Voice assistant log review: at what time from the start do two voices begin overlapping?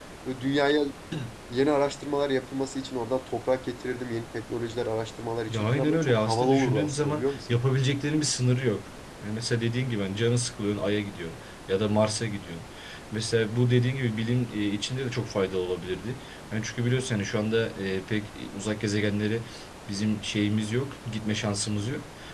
5.5 s

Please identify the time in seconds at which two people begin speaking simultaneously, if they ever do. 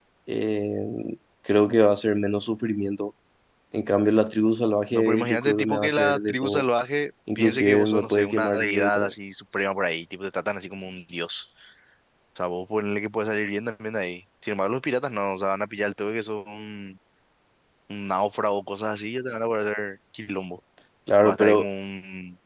4.9 s

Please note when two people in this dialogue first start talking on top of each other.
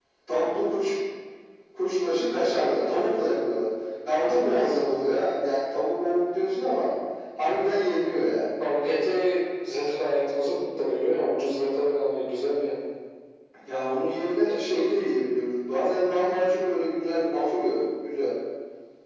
none

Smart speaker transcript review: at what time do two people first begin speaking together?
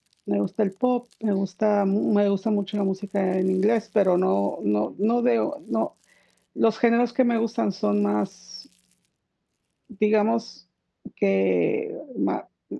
none

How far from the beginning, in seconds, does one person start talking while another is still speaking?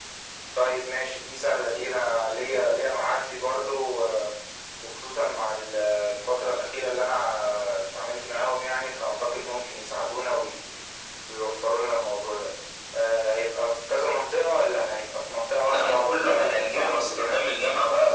15.7 s

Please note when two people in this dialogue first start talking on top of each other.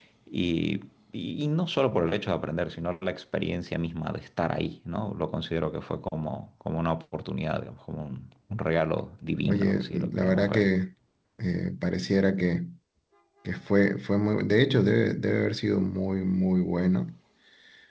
9.5 s

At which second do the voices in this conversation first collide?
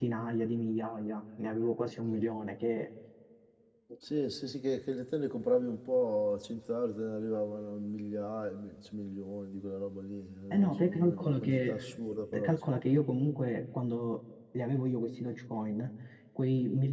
10.5 s

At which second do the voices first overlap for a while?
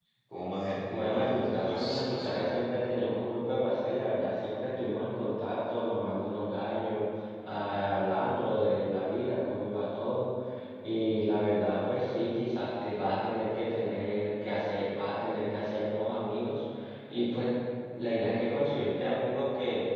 0.9 s

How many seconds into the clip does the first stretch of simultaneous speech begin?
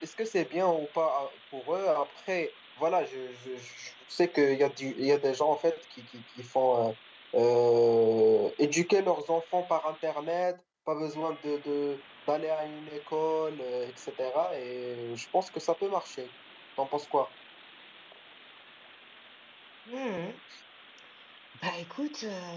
none

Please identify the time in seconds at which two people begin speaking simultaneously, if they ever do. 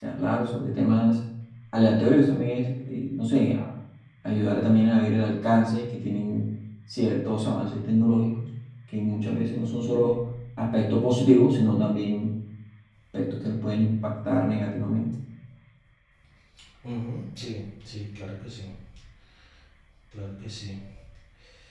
none

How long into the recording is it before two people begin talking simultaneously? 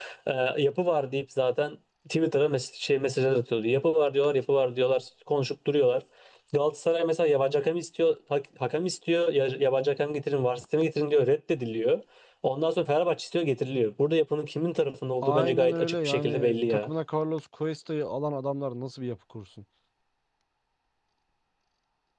15.2 s

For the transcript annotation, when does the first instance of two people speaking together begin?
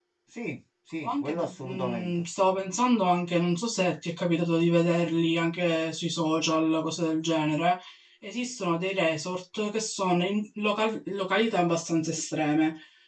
1.0 s

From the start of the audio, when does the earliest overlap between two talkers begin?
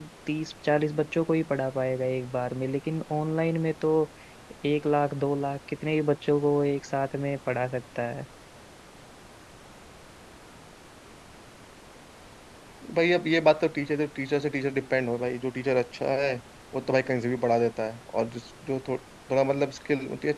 none

